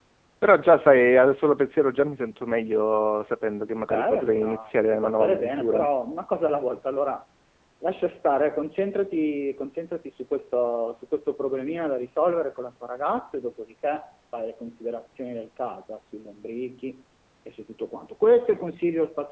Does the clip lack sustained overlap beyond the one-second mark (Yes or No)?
No